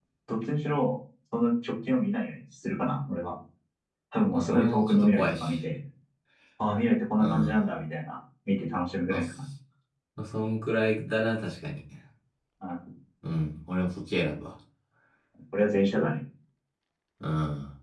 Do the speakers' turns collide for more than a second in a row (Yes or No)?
Yes